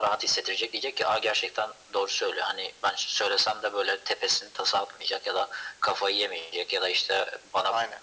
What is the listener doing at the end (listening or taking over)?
listening